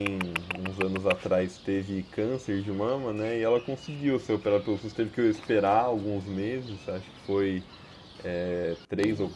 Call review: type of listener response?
listening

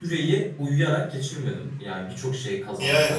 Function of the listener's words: listening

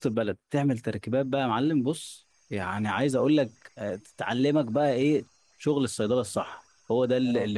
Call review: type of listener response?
listening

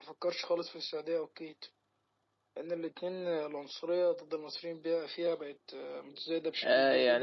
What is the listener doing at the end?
taking over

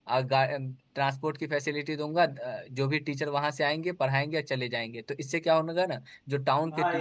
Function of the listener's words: listening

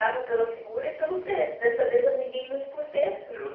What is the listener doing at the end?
listening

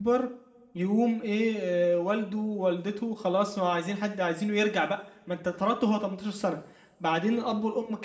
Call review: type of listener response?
listening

